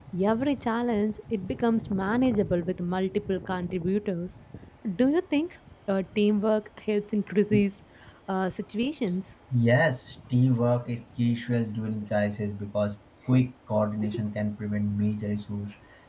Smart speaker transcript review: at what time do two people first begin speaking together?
none

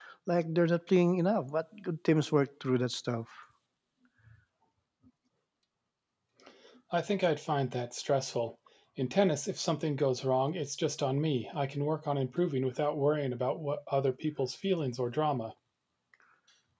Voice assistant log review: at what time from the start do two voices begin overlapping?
none

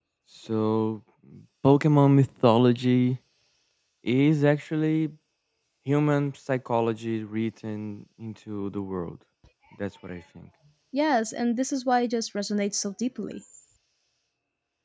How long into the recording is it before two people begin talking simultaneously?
none

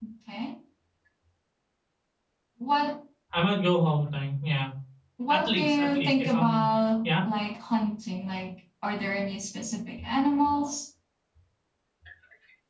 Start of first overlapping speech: 5.3 s

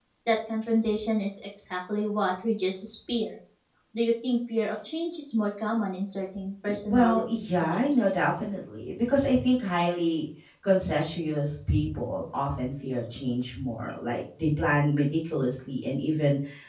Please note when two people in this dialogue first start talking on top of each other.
6.7 s

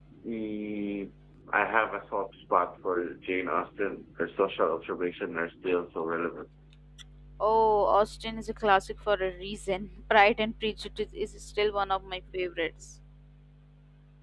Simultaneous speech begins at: none

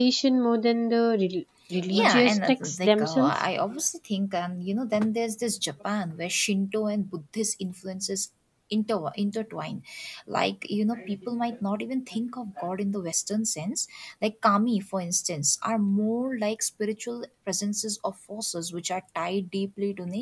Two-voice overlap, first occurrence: 1.7 s

